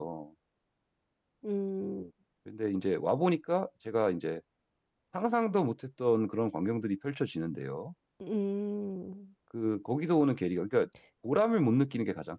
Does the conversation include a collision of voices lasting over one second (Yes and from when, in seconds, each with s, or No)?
No